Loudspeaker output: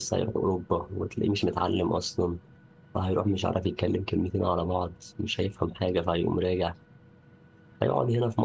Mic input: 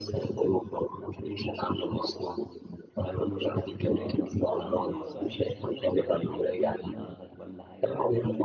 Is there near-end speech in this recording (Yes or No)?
Yes